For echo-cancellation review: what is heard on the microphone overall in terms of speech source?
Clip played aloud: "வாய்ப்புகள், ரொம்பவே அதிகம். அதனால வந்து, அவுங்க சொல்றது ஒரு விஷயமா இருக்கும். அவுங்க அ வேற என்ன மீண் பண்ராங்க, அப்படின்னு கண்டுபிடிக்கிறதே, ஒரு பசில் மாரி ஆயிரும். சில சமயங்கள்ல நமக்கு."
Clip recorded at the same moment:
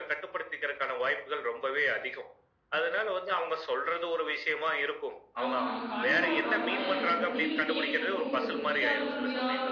both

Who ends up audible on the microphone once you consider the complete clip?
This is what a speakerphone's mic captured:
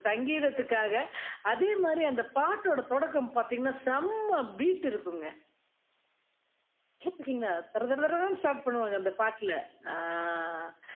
echo only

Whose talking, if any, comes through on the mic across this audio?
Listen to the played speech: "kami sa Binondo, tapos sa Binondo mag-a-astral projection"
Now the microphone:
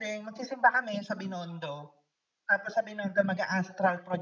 echo only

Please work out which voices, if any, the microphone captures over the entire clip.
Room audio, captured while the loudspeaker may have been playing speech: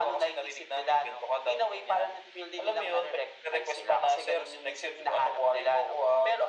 echo only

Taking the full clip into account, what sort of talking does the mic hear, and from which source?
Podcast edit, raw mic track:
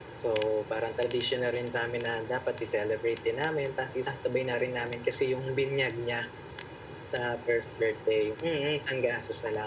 echo only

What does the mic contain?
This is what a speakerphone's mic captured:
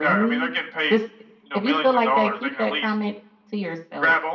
echo only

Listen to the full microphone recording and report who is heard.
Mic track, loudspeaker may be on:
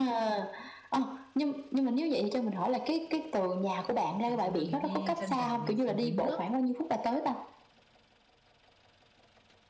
both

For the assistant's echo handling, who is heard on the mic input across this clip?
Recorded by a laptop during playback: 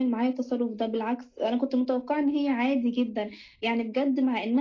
echo only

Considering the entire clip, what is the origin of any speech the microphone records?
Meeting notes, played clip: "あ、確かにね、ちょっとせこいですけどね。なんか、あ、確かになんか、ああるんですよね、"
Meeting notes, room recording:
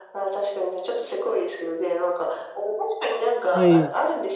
both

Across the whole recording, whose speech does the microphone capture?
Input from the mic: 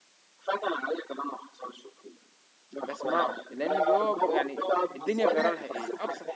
both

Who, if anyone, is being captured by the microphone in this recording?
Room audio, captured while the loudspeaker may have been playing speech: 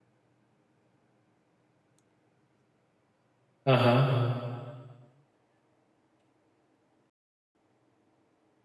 user only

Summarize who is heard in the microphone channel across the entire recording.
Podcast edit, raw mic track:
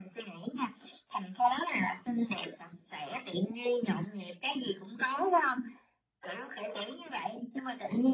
echo only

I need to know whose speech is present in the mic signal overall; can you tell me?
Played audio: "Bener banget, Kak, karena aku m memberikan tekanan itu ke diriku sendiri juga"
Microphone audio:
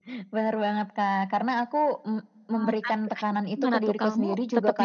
both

